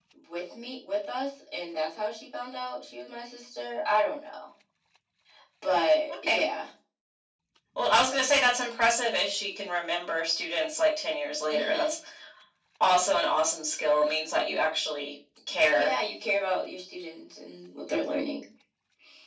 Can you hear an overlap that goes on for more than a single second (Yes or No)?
No